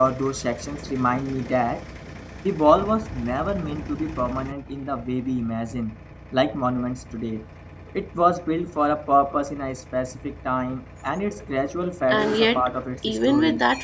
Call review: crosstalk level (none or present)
present